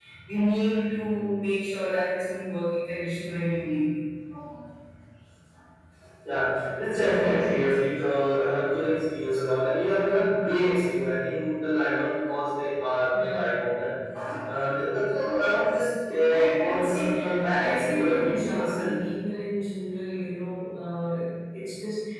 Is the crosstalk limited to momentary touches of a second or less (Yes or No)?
No